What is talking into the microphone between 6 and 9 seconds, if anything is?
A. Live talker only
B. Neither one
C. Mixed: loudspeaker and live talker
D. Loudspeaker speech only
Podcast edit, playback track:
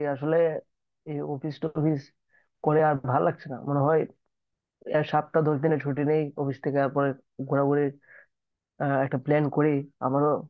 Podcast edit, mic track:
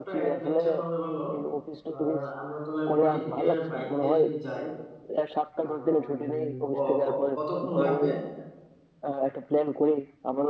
C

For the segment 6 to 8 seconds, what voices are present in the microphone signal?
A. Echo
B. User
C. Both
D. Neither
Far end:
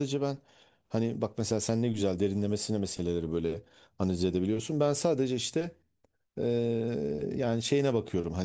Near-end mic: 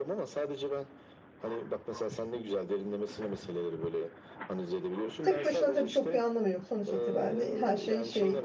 C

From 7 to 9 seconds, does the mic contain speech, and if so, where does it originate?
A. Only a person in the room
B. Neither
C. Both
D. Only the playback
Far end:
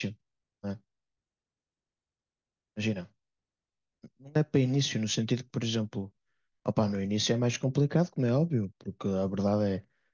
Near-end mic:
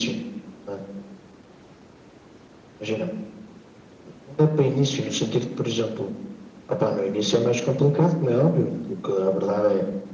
D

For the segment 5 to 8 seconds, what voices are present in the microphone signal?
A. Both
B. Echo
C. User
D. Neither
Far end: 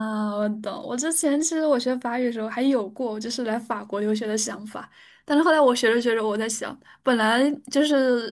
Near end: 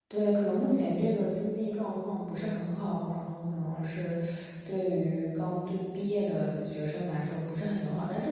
C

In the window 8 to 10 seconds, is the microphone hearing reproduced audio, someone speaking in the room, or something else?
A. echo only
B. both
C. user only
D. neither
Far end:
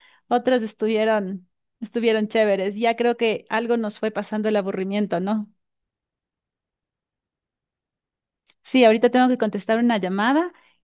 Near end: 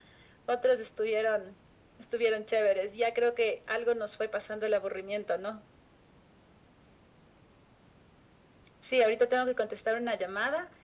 A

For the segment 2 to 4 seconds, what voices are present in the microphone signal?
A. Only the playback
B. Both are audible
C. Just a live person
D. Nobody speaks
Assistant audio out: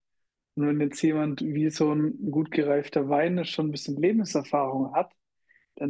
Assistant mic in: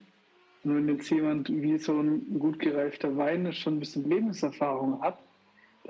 A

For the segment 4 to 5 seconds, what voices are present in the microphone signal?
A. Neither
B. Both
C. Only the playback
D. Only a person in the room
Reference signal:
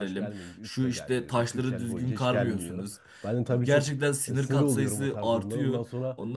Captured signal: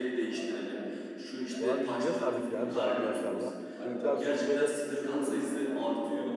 B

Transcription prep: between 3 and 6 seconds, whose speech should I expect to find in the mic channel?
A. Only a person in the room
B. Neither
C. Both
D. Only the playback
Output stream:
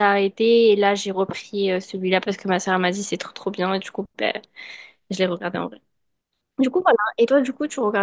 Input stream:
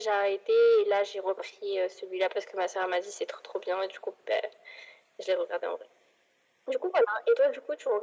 D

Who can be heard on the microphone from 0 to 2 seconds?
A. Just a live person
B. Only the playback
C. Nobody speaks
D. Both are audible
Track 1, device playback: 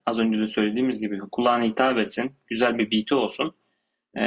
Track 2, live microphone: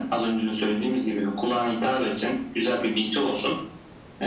B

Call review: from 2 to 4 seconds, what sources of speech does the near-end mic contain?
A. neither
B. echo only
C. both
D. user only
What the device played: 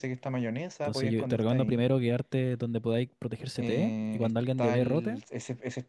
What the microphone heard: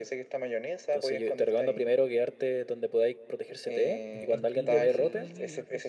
B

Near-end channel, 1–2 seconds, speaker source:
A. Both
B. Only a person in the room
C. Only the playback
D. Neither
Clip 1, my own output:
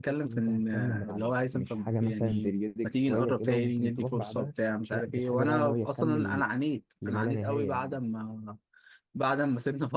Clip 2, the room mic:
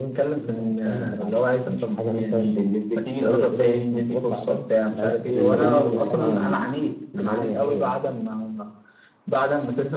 C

